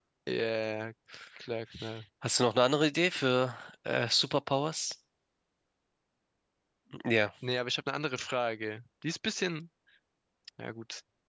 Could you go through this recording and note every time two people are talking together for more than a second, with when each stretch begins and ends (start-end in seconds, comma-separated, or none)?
none